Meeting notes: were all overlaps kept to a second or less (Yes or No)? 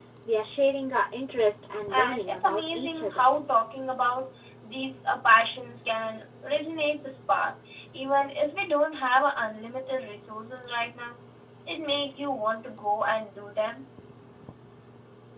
No